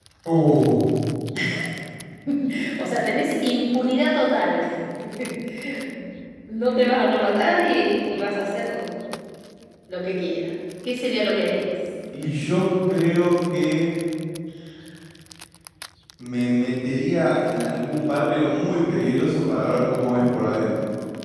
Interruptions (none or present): none